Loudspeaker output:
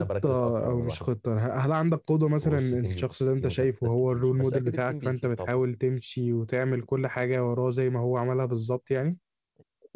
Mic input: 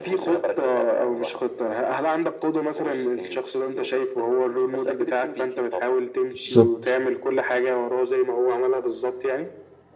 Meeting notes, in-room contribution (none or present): present